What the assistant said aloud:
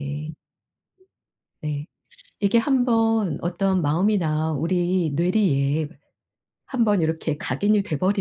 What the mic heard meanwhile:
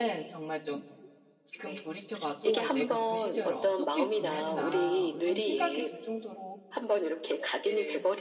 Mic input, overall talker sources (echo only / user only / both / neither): both